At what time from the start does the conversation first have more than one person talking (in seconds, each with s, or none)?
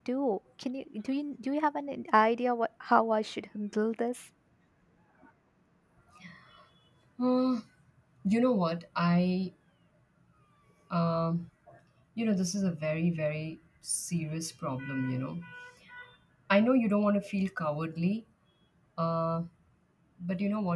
none